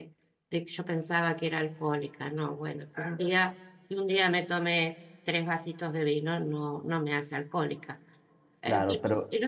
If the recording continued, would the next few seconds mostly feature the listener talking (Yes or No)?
No